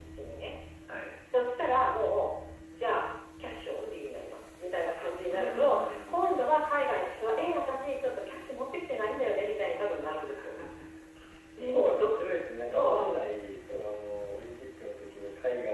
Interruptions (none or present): present